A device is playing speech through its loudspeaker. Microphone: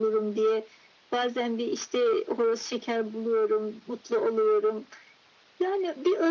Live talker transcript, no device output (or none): none